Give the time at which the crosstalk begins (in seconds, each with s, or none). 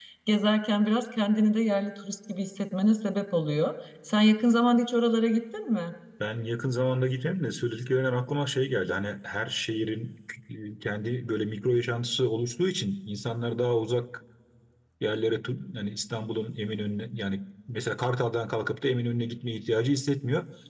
none